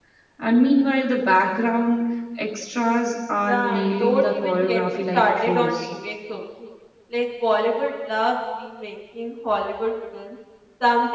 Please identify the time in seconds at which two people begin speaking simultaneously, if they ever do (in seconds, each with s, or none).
3.5 s